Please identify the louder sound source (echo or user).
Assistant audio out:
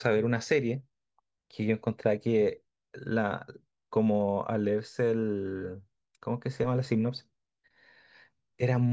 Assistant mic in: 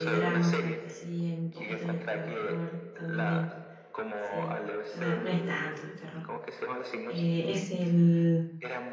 user